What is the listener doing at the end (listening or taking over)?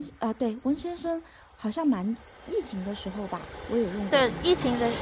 taking over